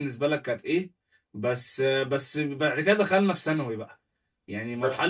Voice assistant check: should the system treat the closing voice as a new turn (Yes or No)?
Yes